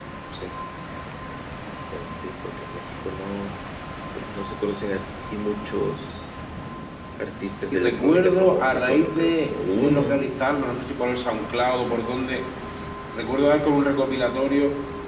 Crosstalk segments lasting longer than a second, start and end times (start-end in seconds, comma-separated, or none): 7.7-10.2